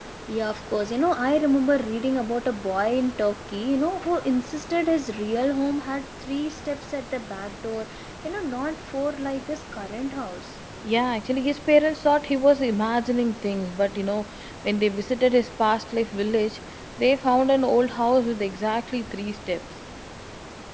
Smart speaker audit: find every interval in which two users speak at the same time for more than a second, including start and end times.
none

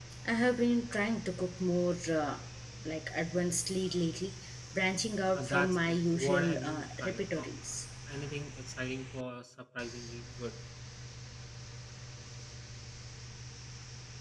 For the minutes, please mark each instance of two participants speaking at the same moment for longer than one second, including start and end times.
5.4-7.5

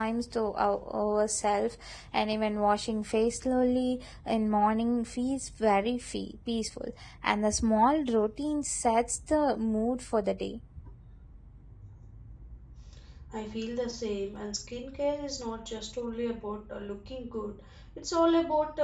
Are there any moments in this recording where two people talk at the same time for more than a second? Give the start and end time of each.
none

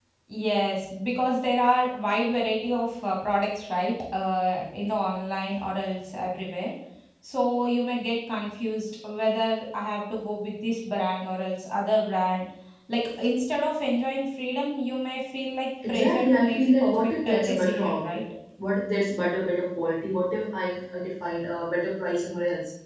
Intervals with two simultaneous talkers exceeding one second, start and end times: 15.9-18.0

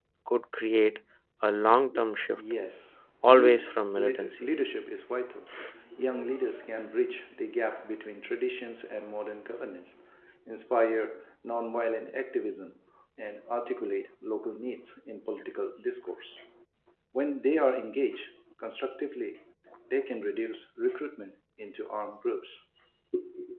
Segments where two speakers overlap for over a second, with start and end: 3.3-4.5

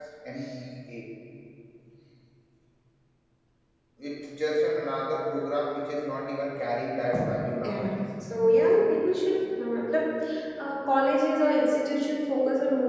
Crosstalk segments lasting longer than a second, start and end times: none

